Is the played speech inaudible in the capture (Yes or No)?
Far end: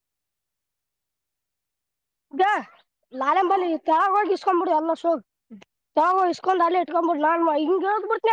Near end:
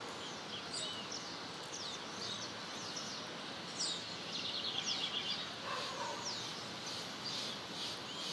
Yes